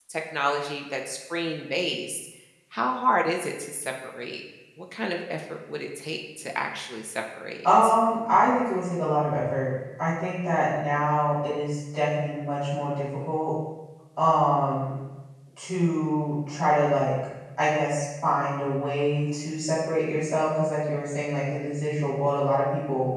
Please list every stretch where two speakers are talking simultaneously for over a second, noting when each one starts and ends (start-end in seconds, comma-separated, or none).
none